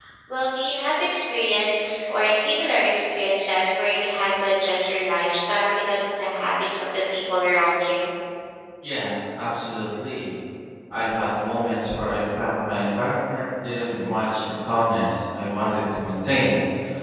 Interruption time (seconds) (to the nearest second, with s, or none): none